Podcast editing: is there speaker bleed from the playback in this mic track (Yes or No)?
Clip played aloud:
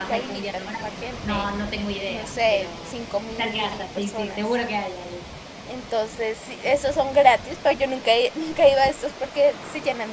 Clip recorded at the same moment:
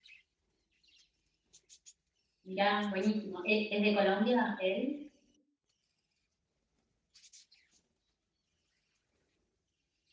No